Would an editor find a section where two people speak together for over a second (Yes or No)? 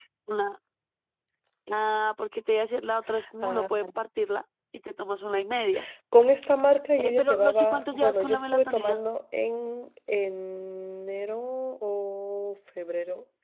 Yes